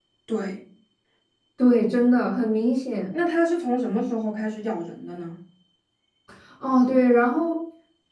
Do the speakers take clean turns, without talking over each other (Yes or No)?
Yes